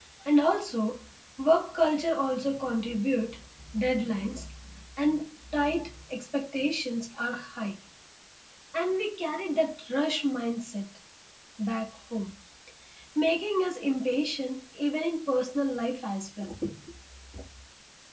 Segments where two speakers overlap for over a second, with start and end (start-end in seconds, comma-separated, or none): none